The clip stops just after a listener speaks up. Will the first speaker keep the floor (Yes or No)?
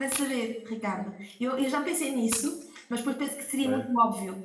Yes